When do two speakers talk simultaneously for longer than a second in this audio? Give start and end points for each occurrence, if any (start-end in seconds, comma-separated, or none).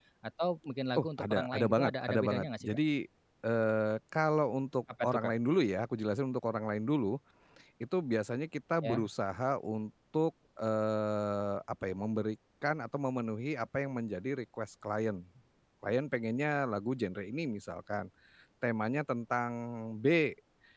1.0-2.8